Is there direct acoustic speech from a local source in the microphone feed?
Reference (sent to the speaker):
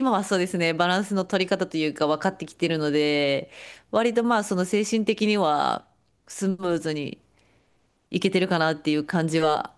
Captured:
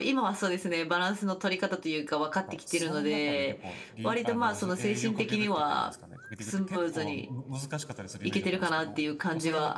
Yes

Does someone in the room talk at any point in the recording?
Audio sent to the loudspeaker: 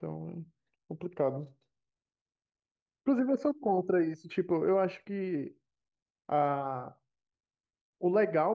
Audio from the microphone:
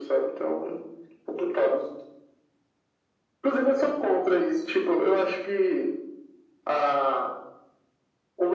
No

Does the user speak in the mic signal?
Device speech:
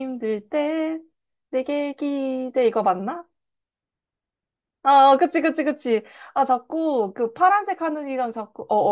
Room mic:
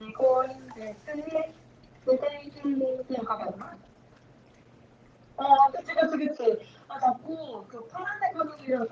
No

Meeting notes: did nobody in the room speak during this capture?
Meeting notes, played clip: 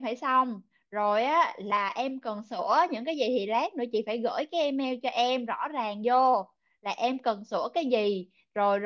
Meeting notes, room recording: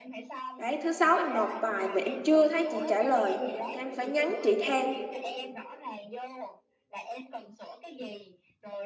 No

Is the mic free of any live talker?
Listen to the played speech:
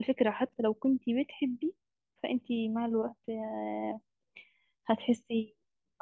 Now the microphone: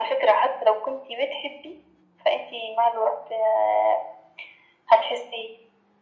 Yes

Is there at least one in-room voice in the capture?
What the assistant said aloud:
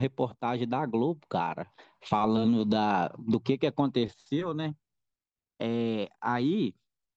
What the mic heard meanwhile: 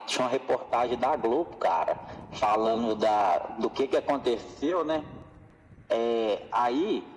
No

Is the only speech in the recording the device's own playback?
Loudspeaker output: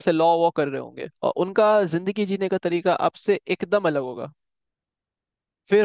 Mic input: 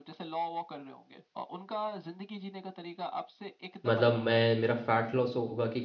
No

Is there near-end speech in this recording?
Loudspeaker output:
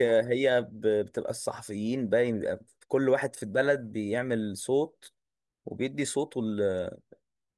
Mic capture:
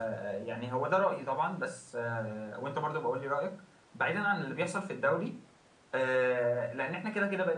Yes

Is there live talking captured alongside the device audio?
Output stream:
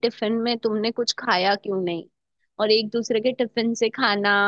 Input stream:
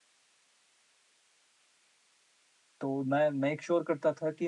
Yes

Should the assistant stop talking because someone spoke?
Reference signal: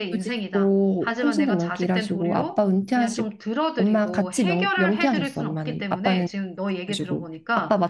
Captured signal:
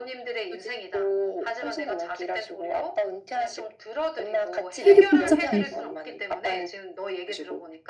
Yes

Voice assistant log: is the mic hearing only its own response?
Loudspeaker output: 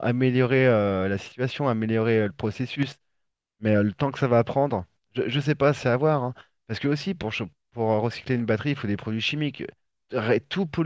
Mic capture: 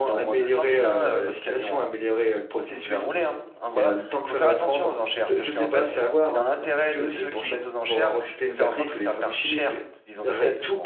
No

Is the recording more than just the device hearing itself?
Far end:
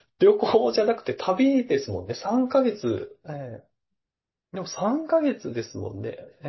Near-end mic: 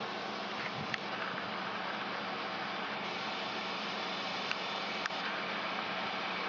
No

